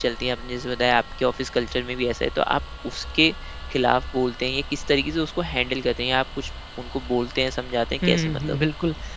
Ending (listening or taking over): taking over